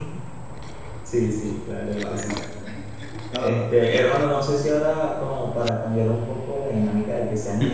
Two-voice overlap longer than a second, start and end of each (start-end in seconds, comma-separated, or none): none